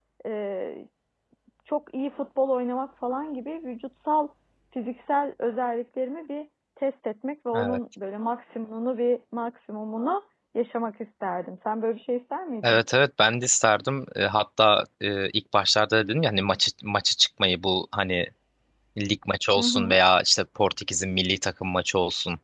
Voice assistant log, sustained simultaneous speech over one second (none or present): none